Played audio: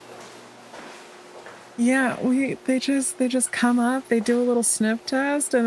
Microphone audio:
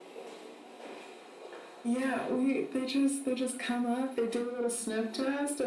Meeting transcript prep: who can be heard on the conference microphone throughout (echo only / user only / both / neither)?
echo only